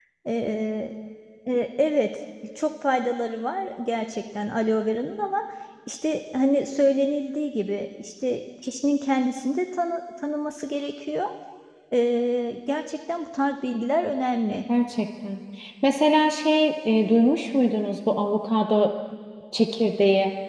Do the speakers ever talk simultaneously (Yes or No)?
No